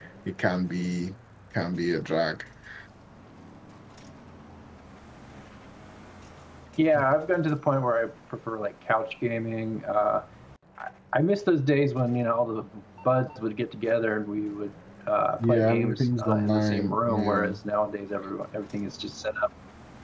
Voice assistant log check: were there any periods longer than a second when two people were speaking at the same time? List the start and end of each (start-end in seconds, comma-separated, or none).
15.4-17.5